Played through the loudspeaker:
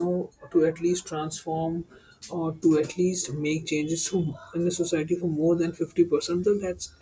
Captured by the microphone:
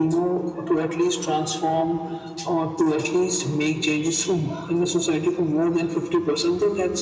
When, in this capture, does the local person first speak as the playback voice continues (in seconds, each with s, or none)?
none